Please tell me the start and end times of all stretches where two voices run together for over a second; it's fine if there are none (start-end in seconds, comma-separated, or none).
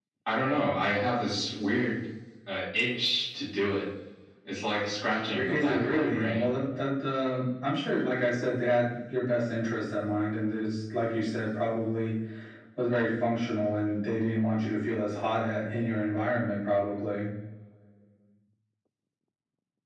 5.3-6.6